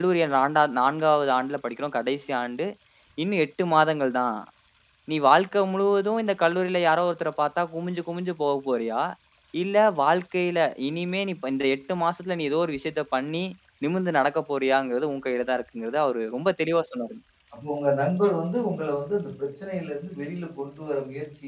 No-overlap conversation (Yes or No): Yes